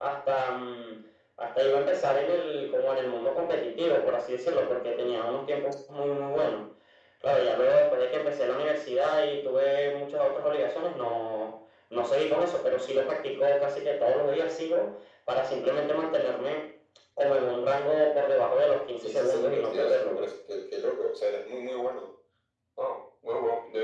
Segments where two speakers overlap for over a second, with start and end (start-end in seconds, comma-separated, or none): 19.0-20.3